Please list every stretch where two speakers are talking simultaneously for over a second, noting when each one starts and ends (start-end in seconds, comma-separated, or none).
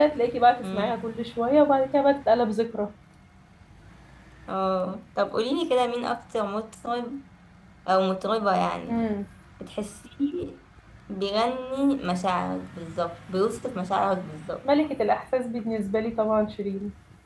none